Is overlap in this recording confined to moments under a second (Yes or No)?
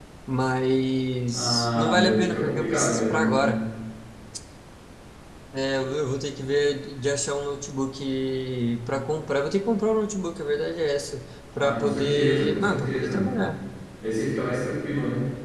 No